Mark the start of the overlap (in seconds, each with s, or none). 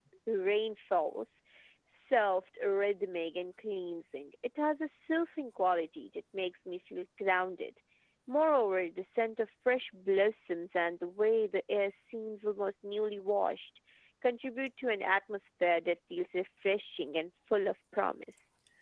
none